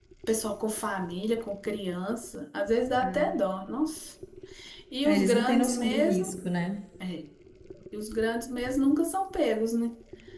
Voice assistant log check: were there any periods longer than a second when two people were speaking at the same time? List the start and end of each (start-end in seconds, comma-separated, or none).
5.0-6.3